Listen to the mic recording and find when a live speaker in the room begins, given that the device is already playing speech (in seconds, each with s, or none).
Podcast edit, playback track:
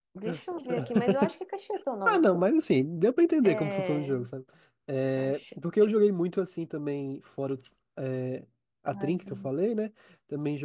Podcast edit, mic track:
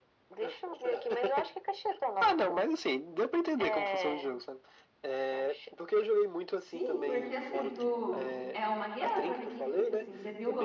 6.5 s